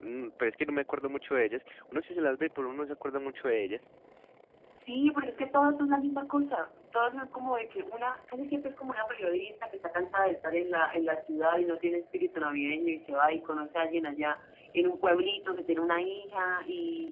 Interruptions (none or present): none